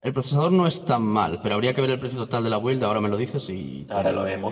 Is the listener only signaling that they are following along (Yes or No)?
No